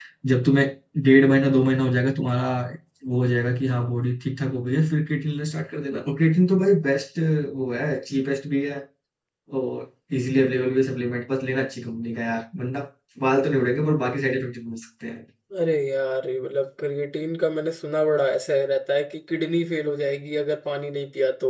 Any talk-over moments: No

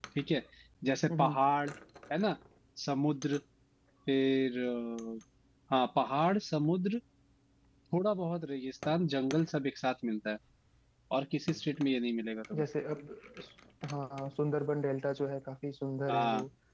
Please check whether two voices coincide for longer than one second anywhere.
No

